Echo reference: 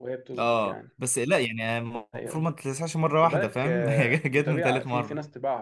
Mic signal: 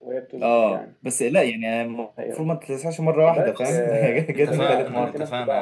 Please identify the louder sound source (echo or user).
echo